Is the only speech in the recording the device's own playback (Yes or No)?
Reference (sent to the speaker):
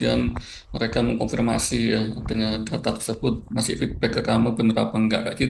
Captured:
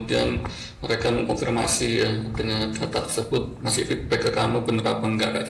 Yes